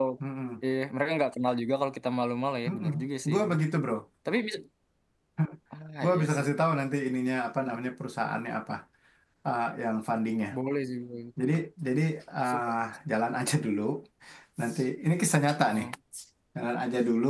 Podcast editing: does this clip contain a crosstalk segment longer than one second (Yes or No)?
No